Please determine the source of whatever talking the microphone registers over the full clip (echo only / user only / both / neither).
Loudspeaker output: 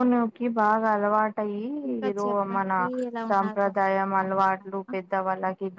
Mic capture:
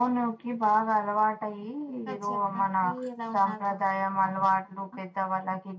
echo only